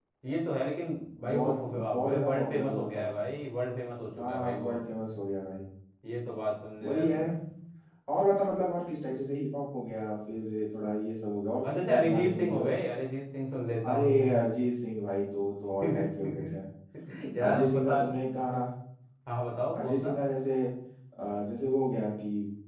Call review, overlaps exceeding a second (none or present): present